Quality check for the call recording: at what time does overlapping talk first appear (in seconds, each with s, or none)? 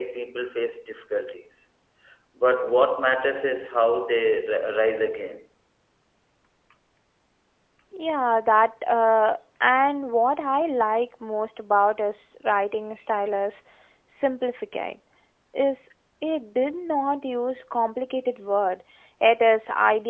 none